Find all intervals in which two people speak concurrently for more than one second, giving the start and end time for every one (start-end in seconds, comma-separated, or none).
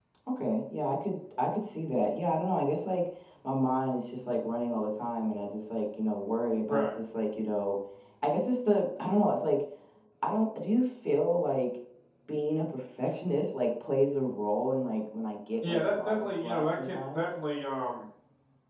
15.7-17.2